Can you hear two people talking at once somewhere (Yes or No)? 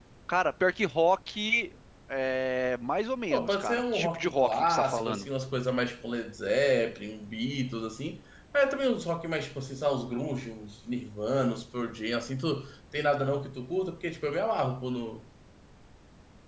Yes